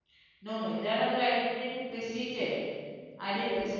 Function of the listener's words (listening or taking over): listening